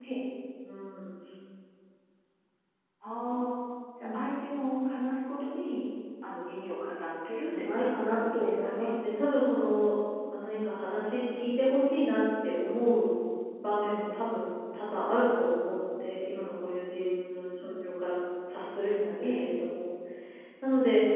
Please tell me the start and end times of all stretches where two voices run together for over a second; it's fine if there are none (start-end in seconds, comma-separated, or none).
7.5-8.9